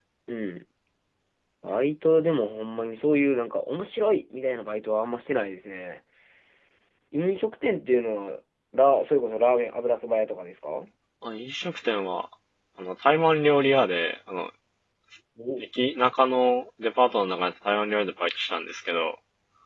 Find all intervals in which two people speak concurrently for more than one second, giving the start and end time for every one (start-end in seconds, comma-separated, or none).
none